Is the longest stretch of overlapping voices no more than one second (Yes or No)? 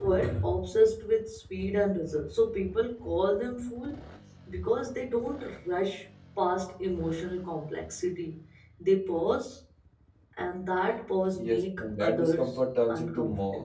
No